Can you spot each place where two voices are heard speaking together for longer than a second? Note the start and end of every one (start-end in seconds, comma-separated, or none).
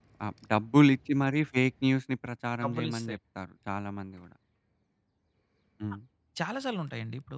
none